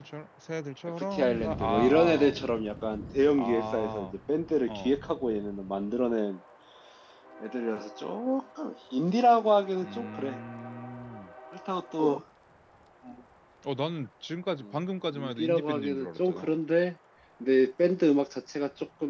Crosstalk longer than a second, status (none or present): present